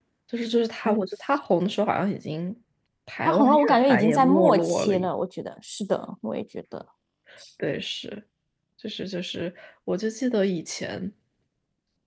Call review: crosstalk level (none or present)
present